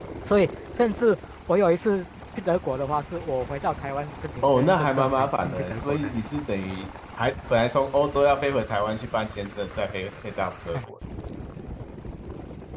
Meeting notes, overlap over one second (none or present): present